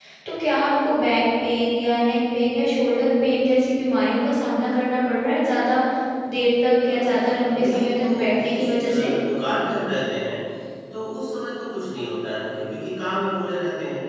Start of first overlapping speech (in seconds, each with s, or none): 6.9 s